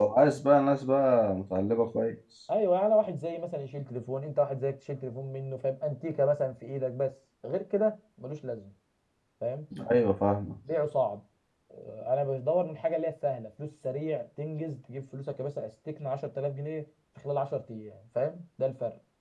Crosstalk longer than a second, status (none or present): none